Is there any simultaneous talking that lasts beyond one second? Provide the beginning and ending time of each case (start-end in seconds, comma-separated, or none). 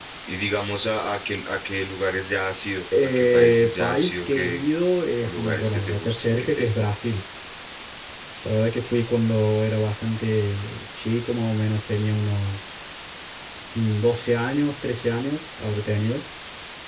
3.0-4.6, 5.2-6.7